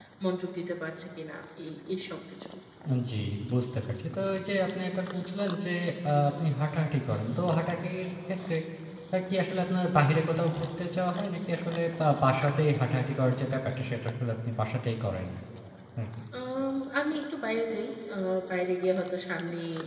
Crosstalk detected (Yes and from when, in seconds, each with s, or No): No